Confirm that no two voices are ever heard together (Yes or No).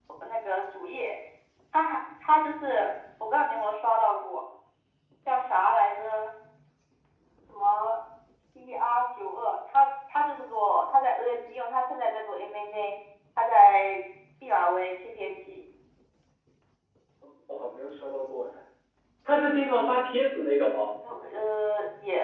Yes